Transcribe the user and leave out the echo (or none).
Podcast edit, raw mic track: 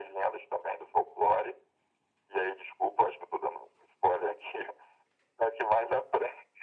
none